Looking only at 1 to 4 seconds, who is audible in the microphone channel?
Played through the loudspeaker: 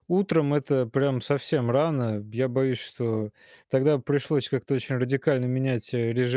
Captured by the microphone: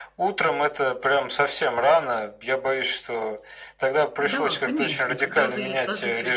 echo only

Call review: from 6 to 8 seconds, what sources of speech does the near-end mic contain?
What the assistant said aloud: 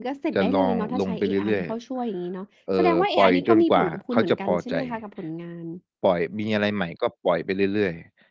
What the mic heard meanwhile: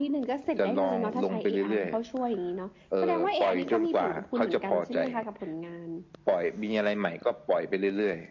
echo only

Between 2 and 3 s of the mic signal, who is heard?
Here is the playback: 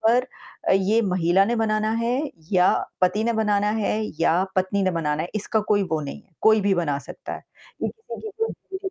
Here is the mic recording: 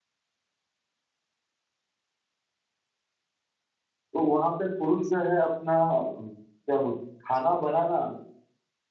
neither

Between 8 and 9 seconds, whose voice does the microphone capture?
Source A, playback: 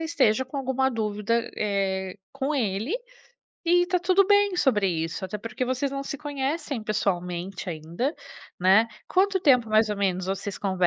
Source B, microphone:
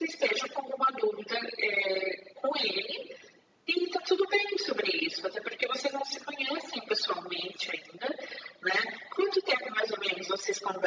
echo only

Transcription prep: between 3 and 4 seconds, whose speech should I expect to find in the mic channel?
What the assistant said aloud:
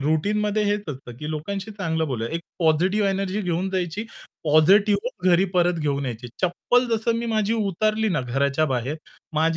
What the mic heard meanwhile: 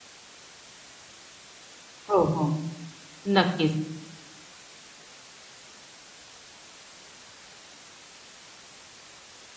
user only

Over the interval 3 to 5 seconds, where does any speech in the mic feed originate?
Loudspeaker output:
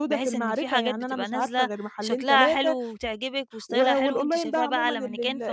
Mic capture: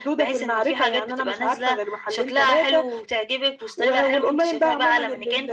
echo only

